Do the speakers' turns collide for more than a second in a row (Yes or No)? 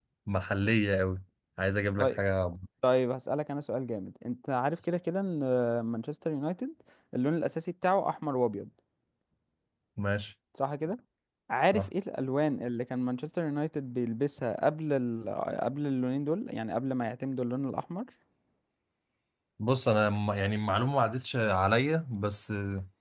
No